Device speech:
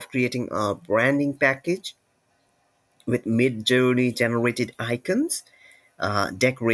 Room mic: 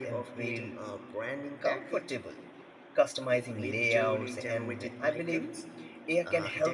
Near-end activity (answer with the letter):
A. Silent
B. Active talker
B